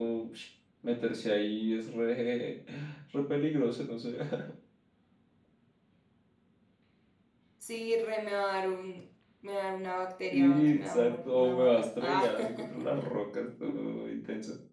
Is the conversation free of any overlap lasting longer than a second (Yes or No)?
No